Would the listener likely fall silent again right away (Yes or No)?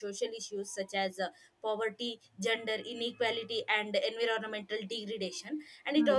Yes